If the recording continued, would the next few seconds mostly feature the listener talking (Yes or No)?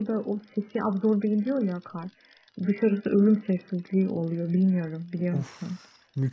Yes